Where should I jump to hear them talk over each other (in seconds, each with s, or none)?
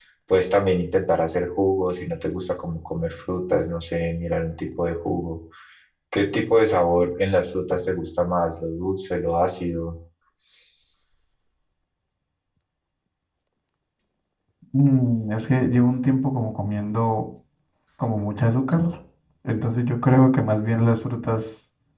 none